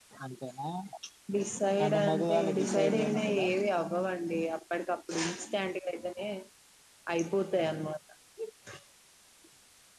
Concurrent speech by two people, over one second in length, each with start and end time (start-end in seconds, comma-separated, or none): 1.8-3.5